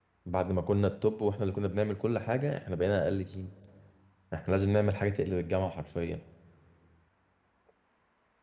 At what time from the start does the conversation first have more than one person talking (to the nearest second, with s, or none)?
none